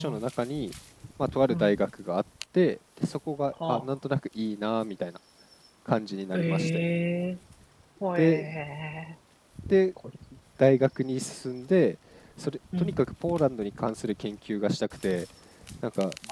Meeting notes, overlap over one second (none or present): none